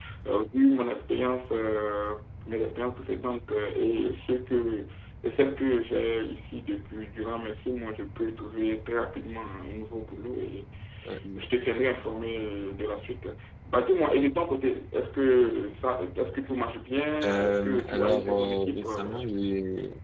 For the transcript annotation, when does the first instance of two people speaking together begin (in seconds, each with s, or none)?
17.2 s